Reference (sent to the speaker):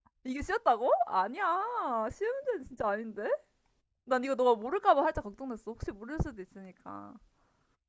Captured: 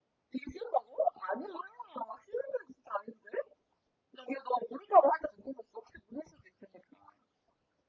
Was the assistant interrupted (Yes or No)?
No